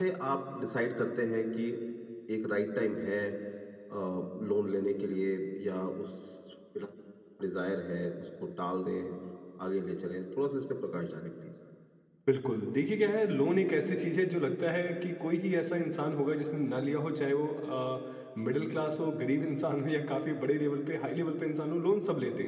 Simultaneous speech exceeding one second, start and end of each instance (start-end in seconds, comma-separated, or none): none